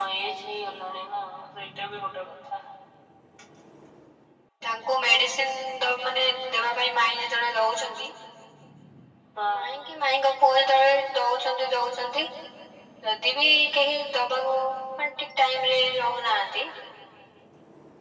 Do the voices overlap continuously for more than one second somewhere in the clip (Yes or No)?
No